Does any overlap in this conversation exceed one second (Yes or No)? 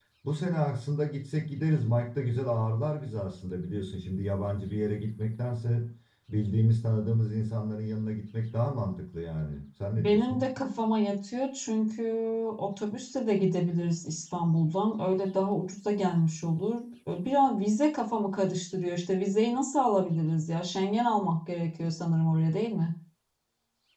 No